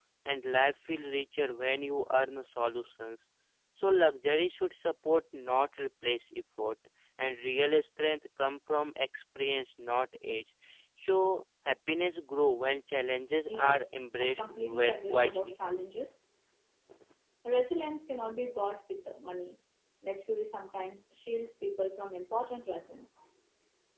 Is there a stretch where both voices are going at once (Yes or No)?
Yes